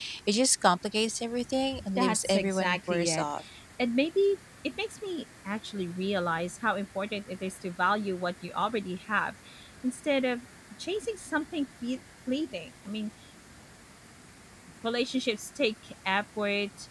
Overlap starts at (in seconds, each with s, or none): 1.7 s